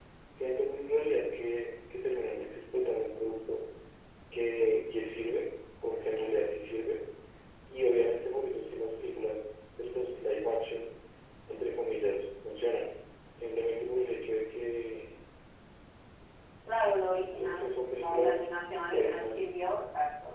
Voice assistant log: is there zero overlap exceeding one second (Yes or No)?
No